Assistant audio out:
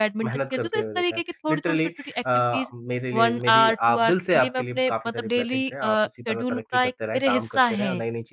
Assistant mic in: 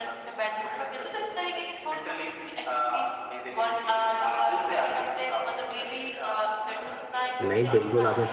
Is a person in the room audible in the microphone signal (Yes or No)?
Yes